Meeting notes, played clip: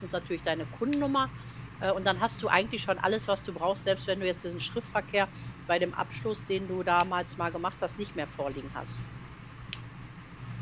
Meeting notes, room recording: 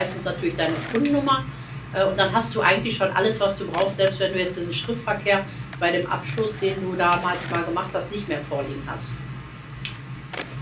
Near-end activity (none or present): none